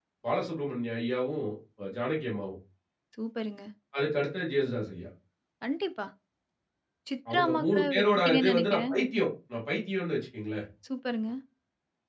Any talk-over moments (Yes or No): Yes